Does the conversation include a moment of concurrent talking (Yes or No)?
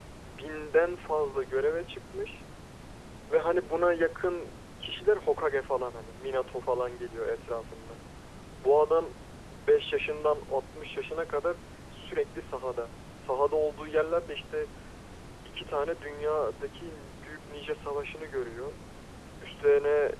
No